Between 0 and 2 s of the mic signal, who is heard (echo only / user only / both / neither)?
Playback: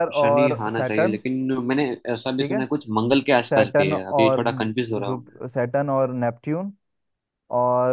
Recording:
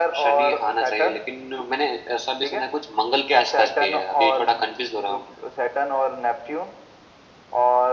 echo only